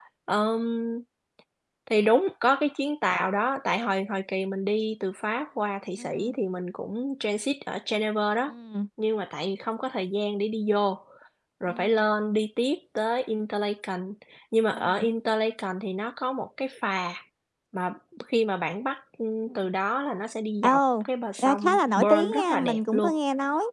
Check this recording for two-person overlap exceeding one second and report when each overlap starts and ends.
21.4-23.1

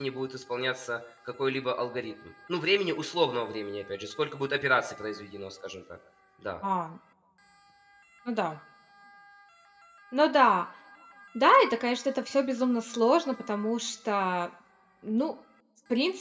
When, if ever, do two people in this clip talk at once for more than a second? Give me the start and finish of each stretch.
none

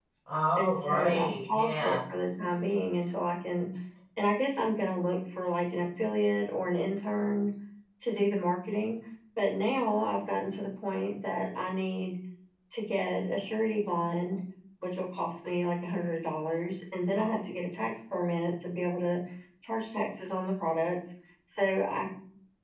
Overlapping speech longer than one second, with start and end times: 0.6-2.0

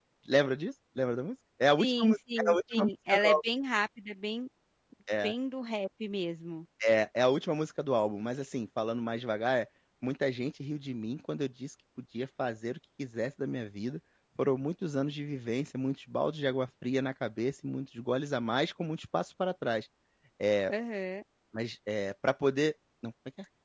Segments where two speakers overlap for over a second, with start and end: 1.8-3.4

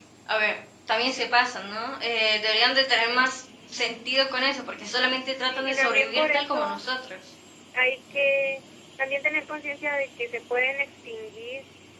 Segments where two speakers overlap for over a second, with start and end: 5.5-6.8

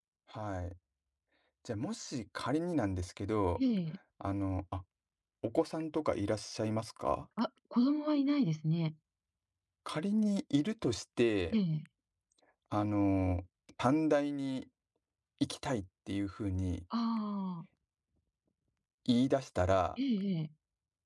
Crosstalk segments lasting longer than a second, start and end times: none

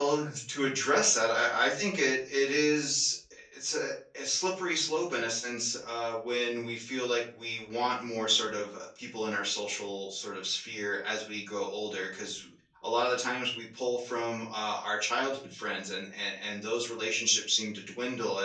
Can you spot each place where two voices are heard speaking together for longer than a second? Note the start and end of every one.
none

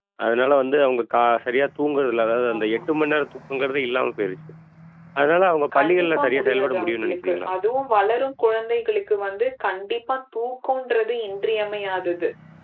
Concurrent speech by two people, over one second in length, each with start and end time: 5.8-7.5

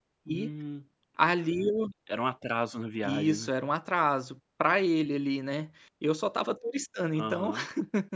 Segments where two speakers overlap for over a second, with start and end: none

